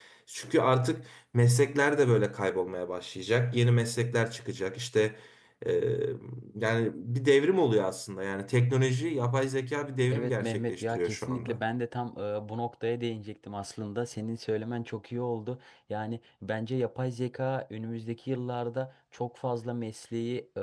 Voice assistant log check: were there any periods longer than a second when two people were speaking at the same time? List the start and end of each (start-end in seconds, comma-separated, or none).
10.1-11.6